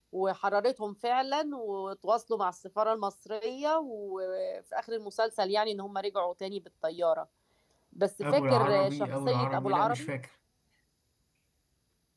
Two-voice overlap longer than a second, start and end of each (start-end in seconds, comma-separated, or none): 8.2-10.1